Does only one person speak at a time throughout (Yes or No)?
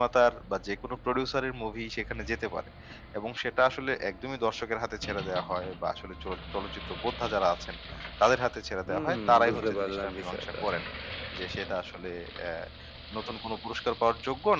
No